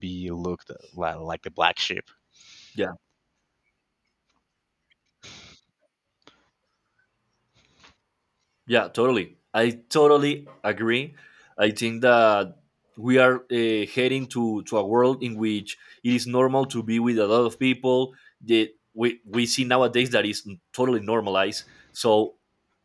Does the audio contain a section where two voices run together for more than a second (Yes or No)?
No